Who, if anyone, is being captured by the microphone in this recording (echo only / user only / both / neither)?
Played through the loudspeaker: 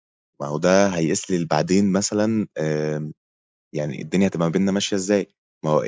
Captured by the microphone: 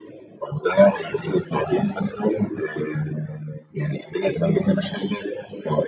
echo only